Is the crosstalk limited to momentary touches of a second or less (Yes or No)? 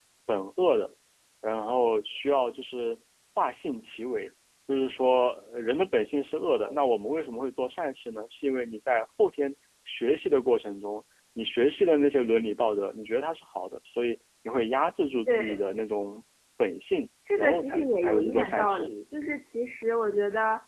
No